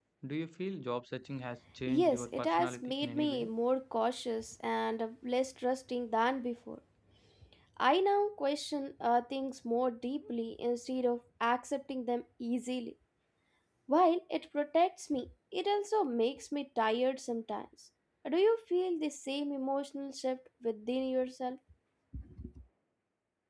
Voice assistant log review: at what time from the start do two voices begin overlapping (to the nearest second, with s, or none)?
2 s